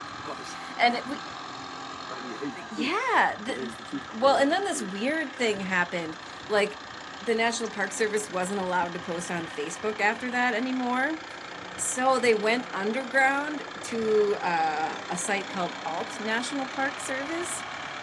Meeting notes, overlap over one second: present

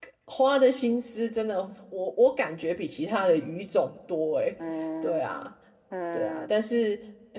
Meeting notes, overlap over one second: none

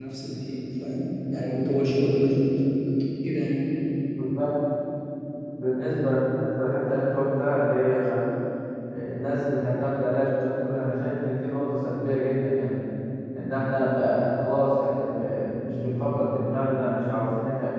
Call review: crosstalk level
none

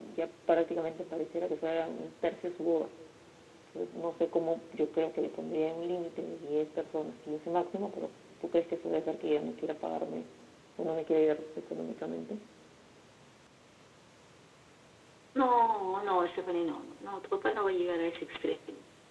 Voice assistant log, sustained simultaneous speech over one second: none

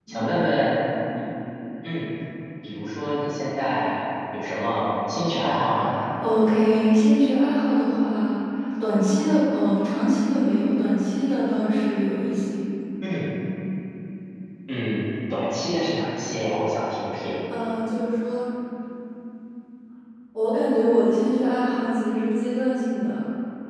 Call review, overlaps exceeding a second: none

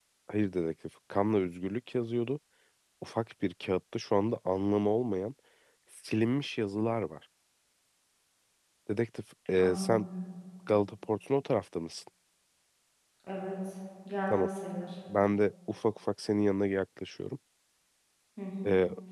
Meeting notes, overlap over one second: none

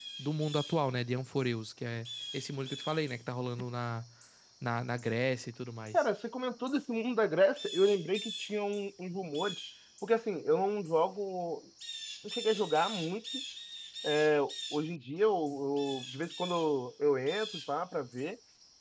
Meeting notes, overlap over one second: none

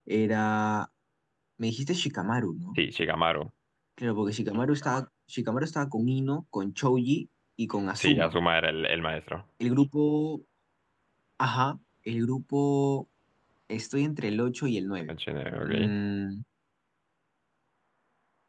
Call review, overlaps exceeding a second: none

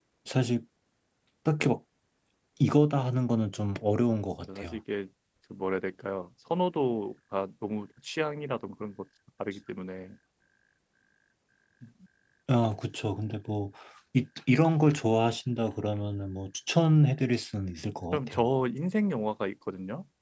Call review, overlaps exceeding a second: none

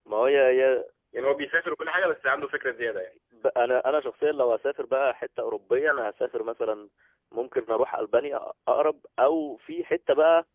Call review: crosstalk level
none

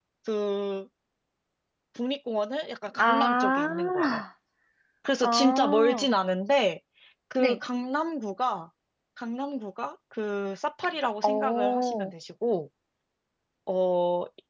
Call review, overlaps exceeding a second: present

